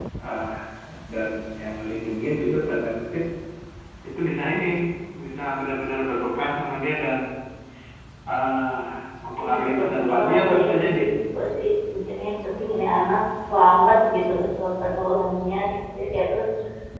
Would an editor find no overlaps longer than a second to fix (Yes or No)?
No